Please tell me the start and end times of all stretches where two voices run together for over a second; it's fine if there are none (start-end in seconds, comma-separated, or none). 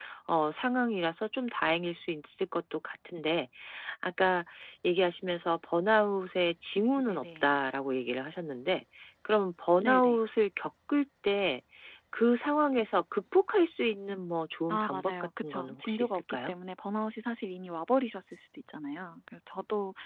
14.7-16.5